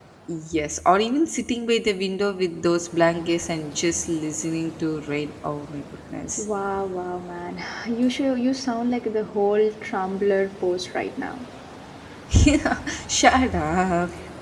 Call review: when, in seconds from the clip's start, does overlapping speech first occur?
none

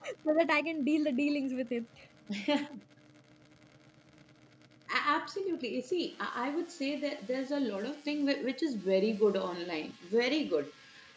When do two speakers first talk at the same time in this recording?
none

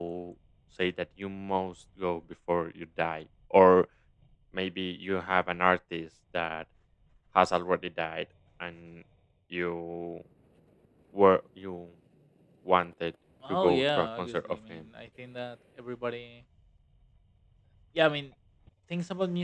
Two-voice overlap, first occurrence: 13 s

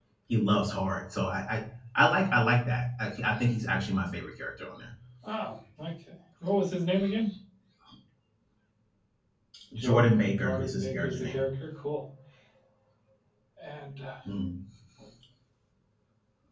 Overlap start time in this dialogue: 10 s

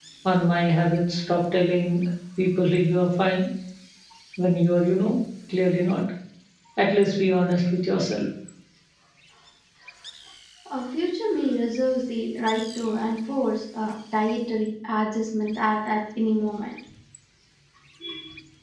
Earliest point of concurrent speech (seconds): none

